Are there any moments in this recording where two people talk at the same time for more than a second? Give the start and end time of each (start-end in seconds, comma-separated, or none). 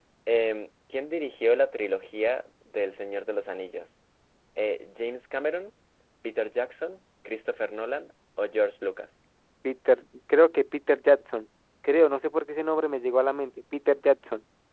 none